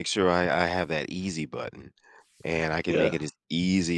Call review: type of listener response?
listening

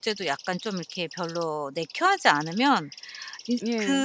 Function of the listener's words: listening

